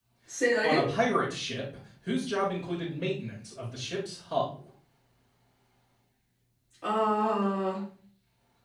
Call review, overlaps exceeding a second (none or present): none